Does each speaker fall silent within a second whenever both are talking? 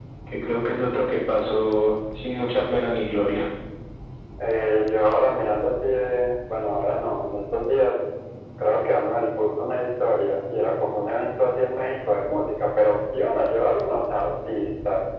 Yes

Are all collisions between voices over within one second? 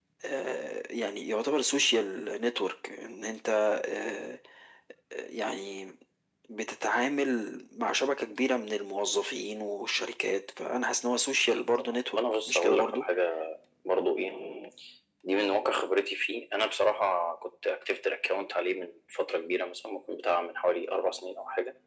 No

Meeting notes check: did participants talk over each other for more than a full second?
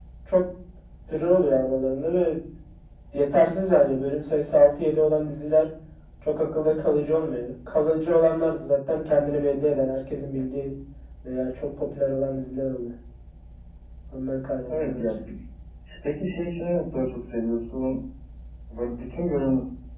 No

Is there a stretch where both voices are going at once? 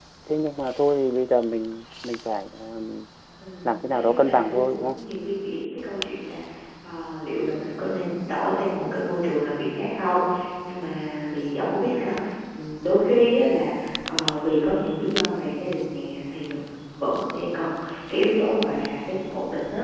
Yes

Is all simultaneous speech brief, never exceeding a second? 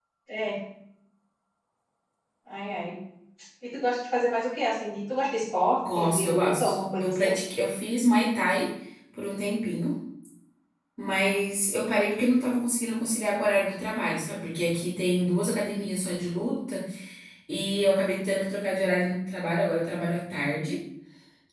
No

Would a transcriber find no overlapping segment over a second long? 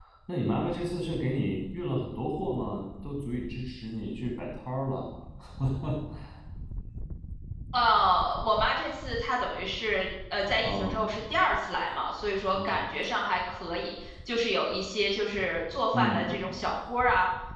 Yes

